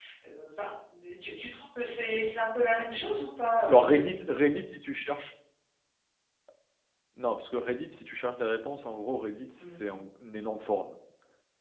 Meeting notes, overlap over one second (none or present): none